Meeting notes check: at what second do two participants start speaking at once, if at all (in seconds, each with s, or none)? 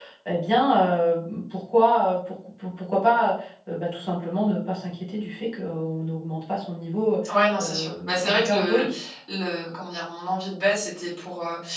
7.6 s